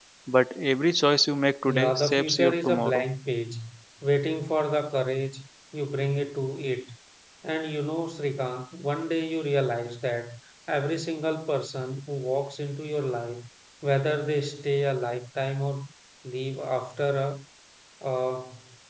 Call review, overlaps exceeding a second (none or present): present